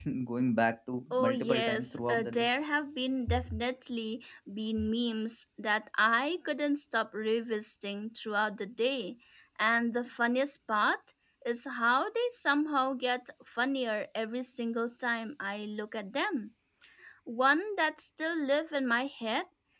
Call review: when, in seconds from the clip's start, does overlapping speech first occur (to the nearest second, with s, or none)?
1 s